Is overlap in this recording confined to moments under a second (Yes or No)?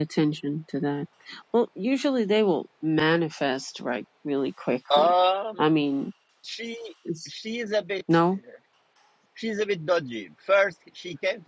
Yes